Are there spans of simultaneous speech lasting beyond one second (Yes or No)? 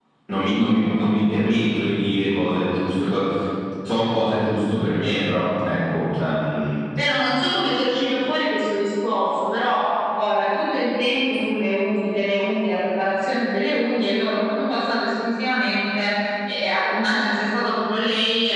No